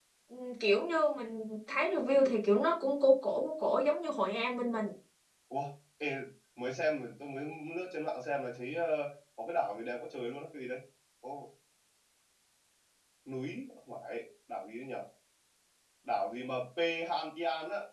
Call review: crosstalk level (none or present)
none